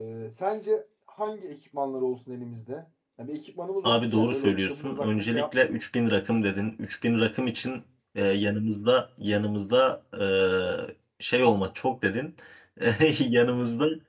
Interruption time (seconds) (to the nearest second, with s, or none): 4 s